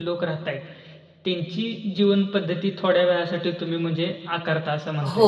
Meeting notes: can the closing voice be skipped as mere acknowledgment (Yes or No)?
No